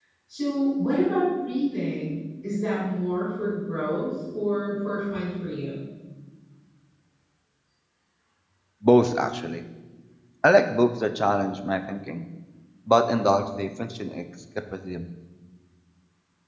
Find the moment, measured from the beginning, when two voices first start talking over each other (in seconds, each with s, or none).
none